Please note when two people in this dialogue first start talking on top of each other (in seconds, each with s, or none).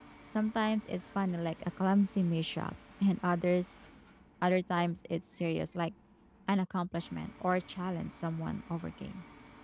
none